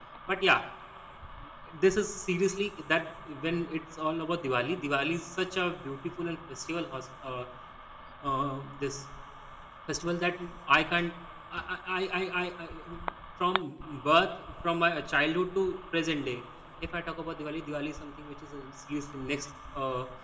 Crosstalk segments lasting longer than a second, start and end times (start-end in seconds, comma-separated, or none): none